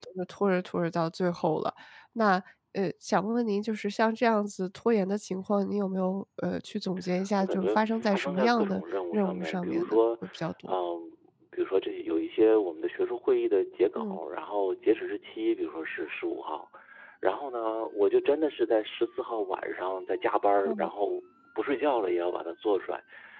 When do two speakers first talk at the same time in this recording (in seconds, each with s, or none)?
7.4 s